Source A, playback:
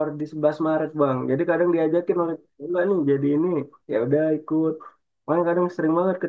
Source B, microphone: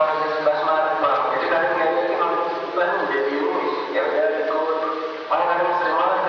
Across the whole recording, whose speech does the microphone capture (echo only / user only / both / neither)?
echo only